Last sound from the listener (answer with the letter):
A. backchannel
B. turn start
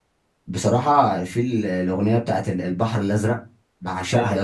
A